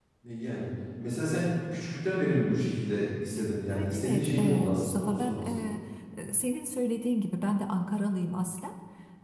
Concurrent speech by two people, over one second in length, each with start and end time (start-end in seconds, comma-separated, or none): 3.7-5.7